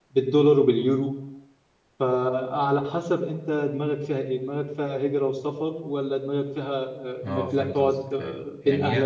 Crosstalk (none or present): present